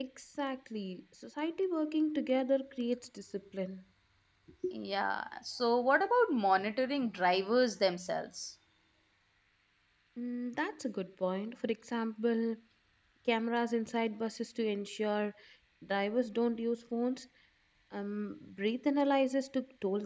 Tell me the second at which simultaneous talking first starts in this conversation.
none

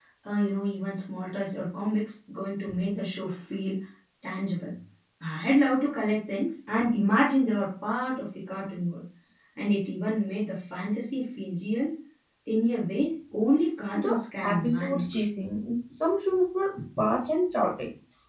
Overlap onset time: 13.9 s

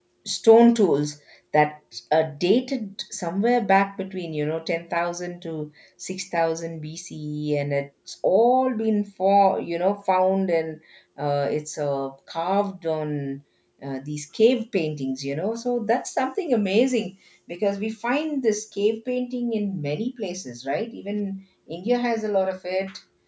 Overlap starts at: none

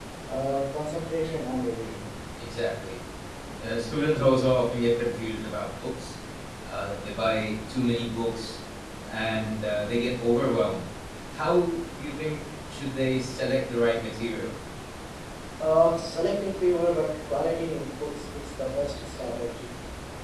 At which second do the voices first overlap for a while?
none

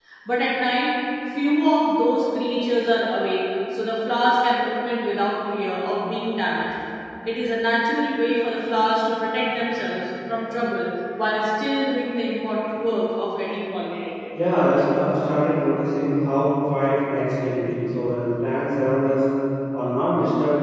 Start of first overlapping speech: none

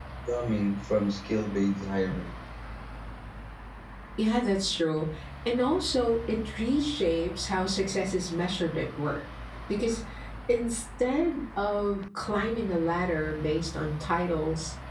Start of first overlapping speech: none

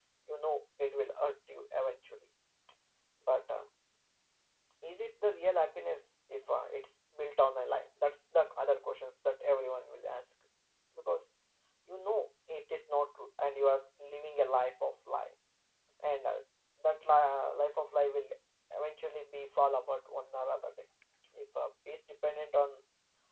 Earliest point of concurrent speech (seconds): none

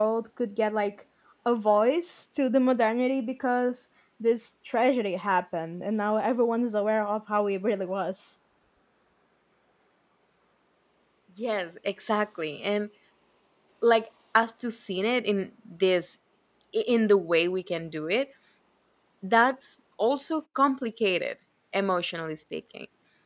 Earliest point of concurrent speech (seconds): none

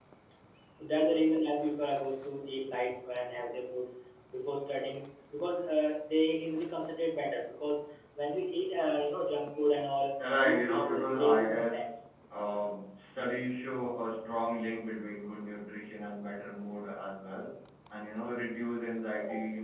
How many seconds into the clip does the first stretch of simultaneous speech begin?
10.2 s

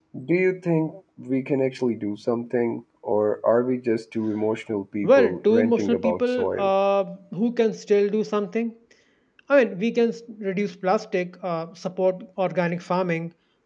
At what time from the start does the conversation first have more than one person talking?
5.0 s

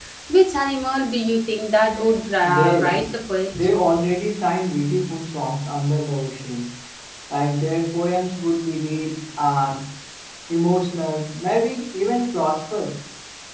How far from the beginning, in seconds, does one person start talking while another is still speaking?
1.8 s

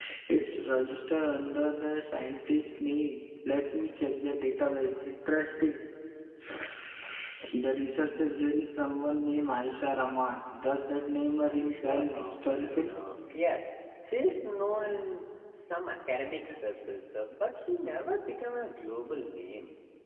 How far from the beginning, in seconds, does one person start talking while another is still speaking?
11.4 s

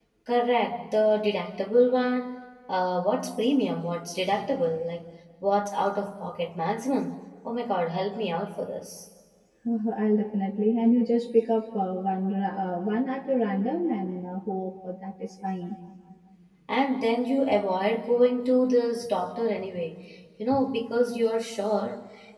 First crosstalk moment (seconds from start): none

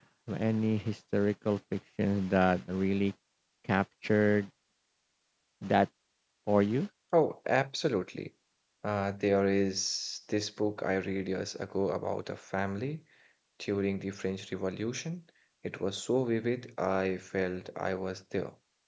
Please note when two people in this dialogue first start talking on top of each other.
none

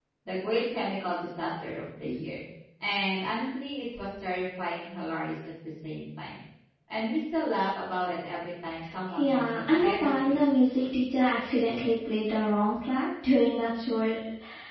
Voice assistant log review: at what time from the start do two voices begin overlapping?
9.1 s

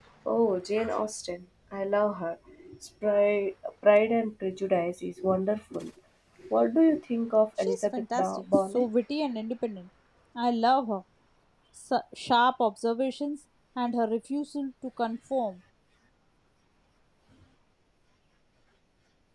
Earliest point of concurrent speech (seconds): 7.6 s

